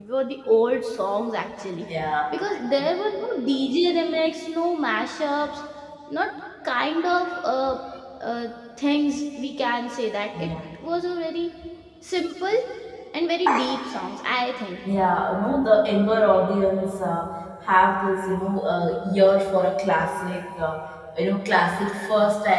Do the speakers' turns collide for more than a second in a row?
No

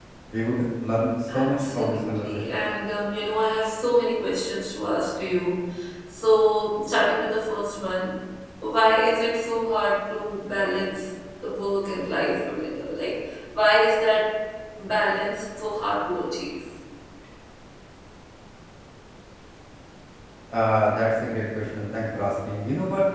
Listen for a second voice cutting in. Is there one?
Yes, from 1.3 s

